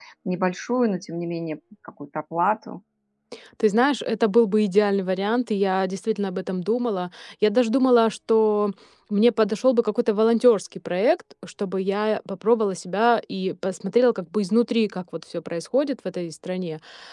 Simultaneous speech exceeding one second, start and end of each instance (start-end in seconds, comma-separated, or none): none